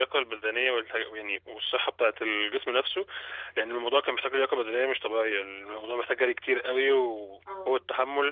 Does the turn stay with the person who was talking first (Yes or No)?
Yes